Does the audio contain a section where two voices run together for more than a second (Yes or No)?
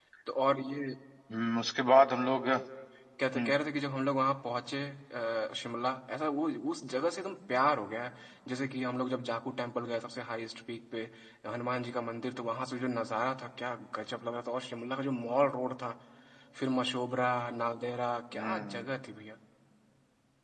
No